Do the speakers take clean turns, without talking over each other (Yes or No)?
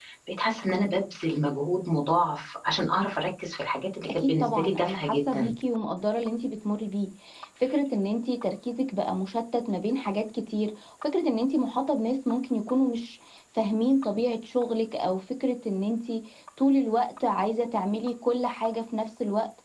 No